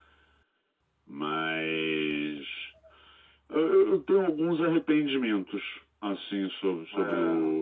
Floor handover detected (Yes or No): No